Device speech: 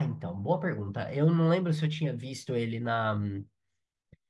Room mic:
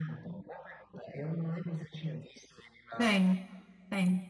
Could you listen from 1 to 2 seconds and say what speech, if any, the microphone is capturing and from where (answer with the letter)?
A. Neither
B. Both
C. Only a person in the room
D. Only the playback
D